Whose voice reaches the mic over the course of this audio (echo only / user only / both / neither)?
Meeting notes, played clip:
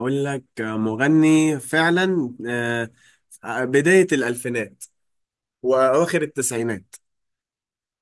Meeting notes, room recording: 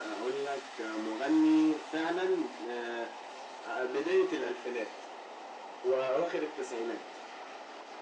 echo only